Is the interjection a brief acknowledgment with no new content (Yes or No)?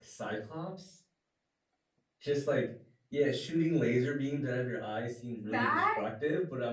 Yes